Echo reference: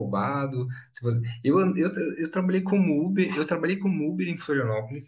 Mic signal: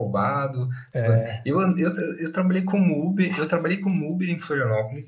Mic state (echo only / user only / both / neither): both